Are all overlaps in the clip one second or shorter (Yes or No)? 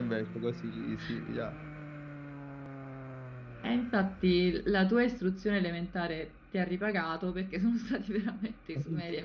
Yes